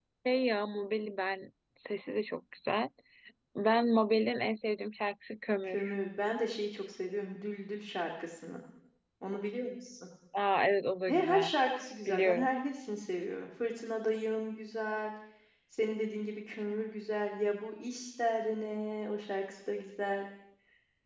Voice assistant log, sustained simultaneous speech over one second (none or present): none